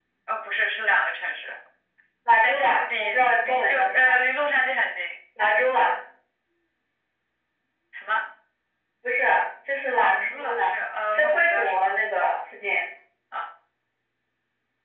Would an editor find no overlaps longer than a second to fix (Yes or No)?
No